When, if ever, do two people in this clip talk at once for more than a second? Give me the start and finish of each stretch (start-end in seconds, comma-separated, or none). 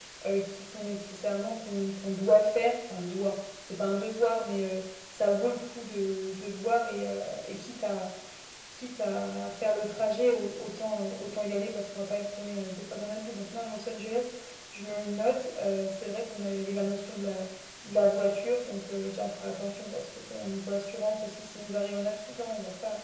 none